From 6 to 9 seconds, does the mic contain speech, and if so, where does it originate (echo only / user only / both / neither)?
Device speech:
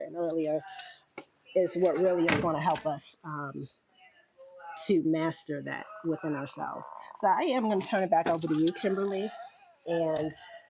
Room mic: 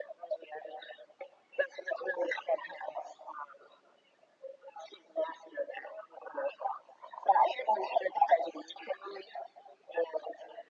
echo only